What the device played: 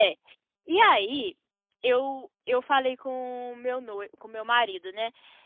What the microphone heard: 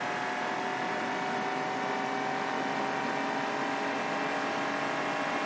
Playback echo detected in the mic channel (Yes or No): No